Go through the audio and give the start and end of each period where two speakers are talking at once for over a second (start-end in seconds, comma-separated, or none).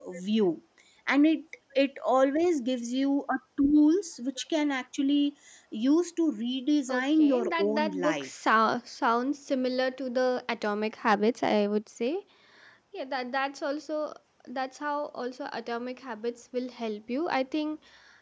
6.9-8.3